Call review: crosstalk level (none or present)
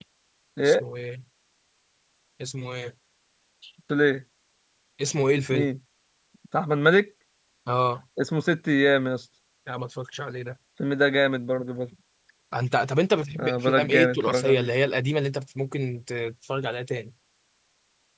present